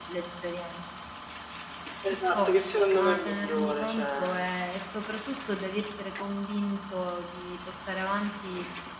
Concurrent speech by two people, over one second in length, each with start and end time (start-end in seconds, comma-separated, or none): 2.1-4.5